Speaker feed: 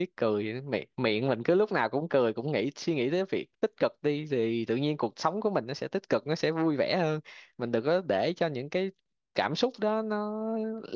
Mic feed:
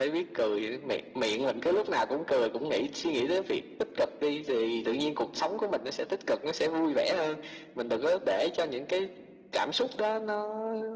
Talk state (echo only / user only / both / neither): echo only